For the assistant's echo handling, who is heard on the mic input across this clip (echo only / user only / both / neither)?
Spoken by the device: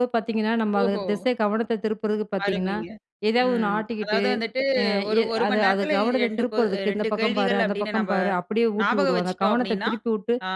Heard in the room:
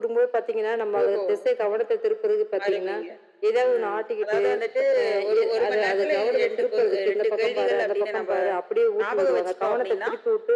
echo only